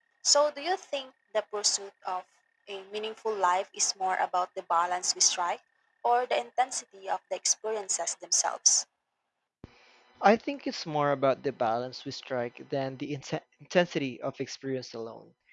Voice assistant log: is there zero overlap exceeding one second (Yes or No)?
Yes